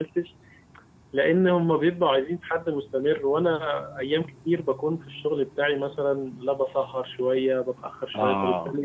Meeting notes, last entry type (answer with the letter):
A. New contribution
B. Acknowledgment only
B